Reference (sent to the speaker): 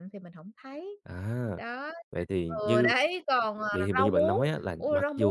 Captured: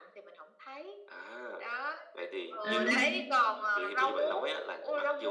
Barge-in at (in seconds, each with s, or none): 2.6 s